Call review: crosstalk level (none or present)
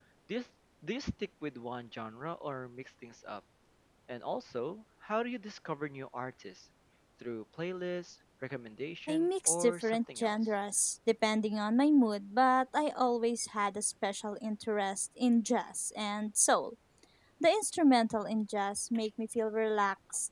present